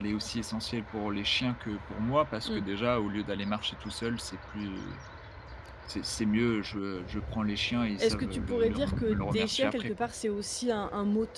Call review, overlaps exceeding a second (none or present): present